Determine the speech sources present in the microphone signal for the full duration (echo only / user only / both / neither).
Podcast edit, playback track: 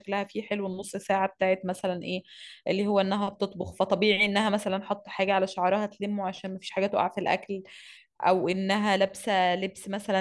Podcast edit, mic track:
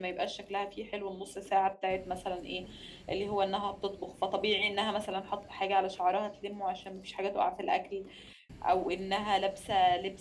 echo only